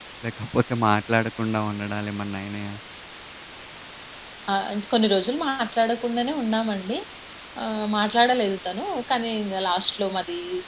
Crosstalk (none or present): none